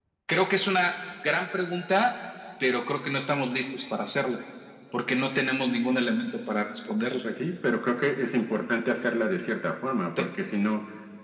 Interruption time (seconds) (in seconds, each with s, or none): none